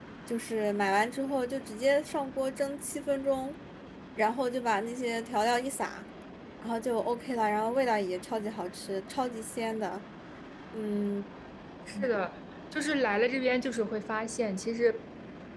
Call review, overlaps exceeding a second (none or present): none